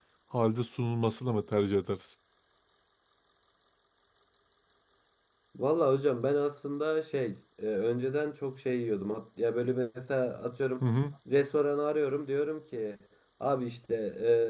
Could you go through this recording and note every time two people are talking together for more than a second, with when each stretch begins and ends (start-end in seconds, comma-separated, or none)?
none